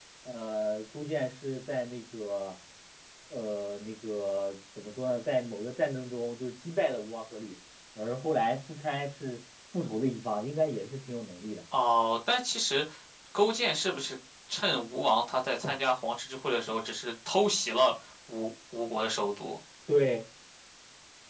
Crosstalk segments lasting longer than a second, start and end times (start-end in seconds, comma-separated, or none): none